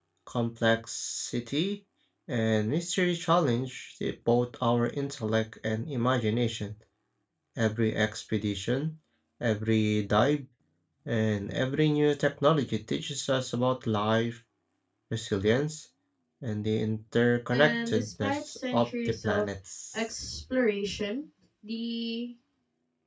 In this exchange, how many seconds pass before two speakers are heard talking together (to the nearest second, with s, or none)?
18 s